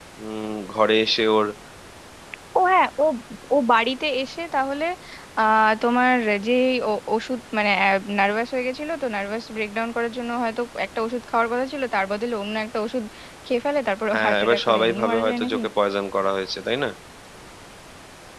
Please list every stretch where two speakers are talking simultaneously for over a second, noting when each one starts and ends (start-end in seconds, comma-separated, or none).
14.1-15.6